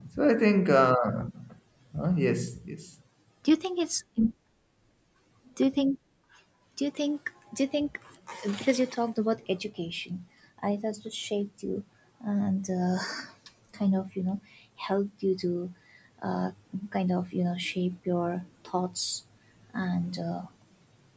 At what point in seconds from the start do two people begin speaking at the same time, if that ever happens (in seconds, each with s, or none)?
none